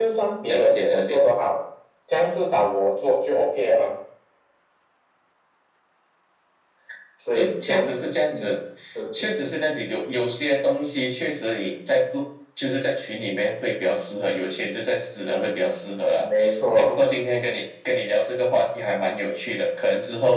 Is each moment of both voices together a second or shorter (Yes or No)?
No